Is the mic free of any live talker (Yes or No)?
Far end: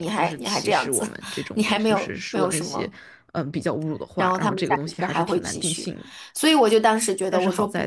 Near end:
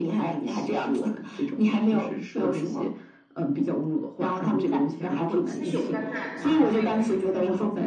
No